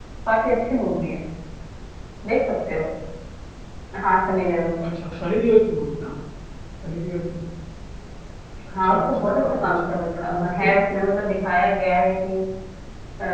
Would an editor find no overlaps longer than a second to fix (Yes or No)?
No